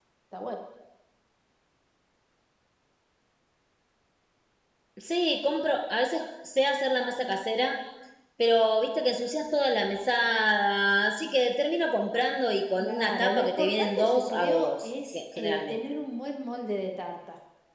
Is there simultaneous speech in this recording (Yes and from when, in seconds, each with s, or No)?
Yes, from 12.8 s